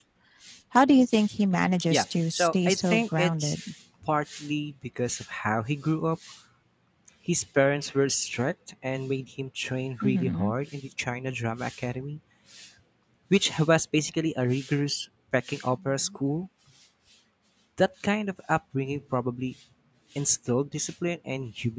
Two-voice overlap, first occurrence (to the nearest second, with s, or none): 2 s